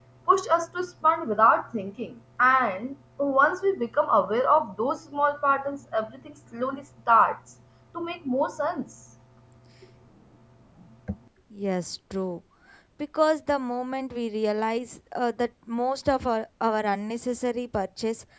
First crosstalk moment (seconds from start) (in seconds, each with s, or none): none